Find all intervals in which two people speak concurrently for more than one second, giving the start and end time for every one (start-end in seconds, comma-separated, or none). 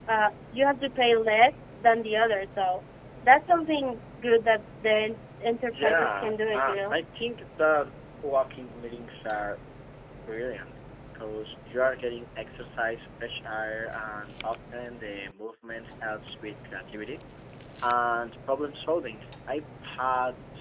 5.7-7.0